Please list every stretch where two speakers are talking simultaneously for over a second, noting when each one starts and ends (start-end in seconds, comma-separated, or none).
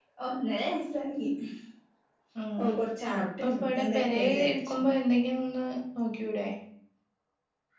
3.2-4.8